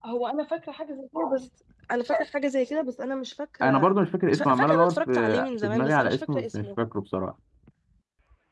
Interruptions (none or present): present